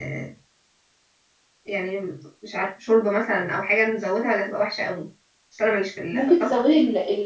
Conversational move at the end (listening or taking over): taking over